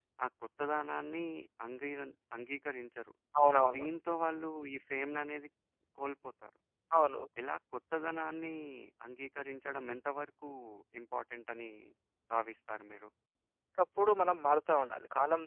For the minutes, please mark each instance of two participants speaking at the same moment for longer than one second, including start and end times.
none

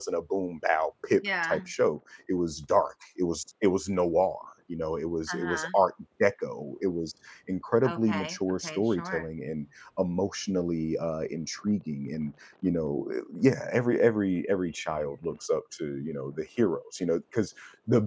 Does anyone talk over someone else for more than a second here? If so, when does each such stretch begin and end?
7.9-9.2

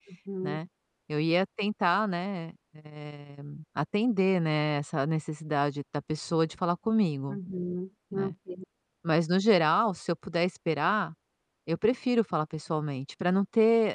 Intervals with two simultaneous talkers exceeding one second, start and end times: none

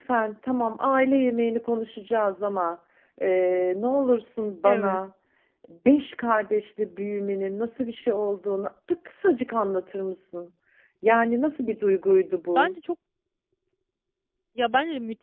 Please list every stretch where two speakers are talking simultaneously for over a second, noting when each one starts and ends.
none

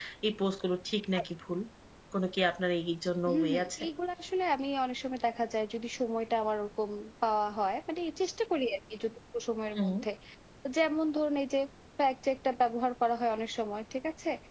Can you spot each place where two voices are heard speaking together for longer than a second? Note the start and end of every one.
none

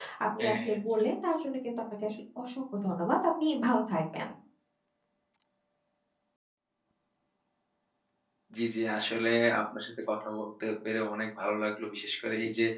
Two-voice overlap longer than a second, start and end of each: none

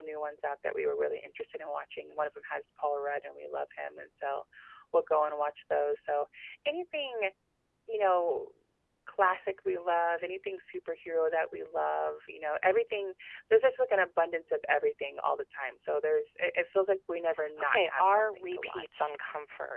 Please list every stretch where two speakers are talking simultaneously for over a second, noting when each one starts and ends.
17.6-19.1

